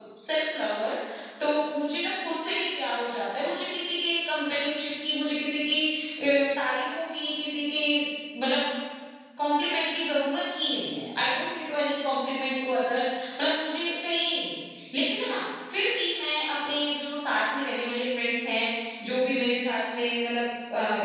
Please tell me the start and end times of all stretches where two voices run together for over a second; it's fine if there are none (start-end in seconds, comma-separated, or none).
none